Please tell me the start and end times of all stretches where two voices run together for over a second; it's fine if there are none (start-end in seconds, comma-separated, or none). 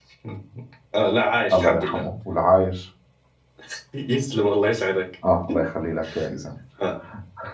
none